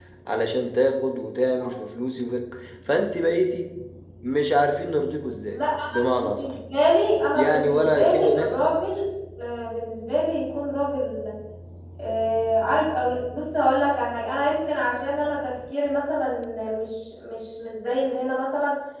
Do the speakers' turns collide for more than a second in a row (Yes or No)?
Yes